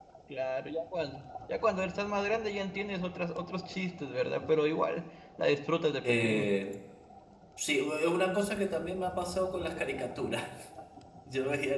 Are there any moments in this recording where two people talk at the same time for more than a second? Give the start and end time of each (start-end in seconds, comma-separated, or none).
none